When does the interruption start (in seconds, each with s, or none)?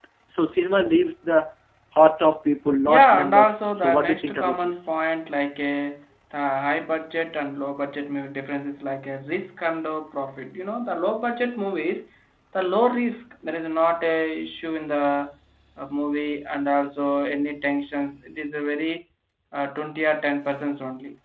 2.9 s